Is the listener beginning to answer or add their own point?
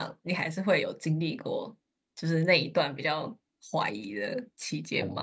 Yes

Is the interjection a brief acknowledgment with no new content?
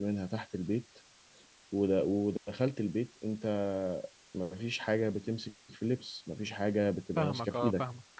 No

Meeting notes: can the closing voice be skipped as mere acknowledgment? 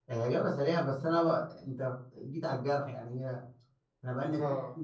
Yes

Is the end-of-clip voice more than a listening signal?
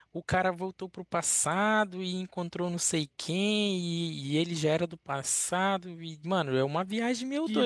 No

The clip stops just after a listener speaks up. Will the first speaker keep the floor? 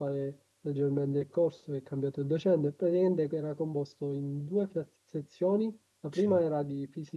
Yes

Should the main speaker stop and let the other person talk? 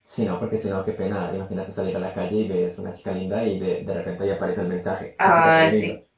Yes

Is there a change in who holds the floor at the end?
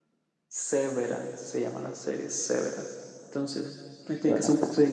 No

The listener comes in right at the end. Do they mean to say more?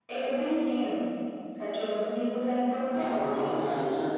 Yes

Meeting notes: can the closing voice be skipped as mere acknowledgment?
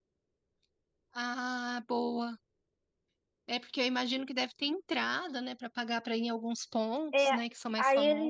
No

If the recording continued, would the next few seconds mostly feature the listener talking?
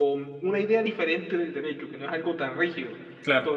No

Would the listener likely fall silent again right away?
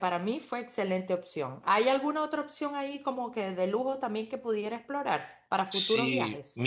No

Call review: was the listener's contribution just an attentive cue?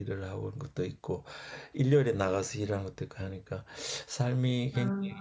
Yes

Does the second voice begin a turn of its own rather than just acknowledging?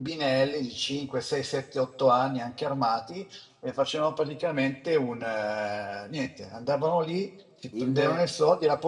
No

